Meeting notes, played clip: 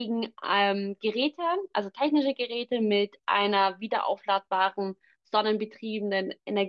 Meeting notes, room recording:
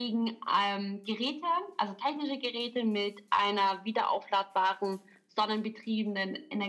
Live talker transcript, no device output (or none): none